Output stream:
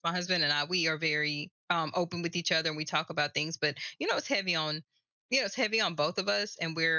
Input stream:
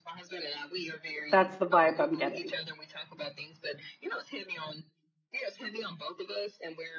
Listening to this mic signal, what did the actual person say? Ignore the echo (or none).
that's the vibe I'm getting.